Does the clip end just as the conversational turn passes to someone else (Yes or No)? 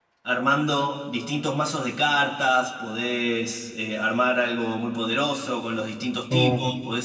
No